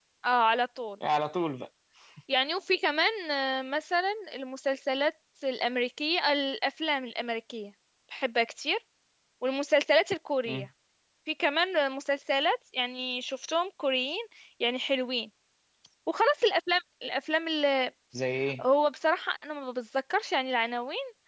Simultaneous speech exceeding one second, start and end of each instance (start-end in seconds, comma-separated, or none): none